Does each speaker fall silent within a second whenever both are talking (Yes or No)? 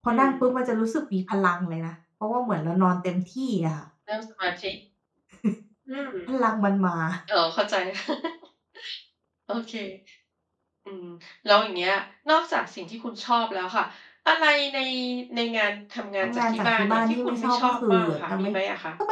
No